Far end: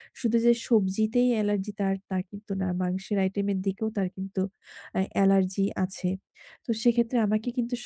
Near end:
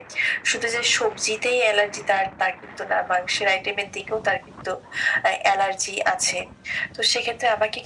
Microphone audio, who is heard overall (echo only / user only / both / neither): echo only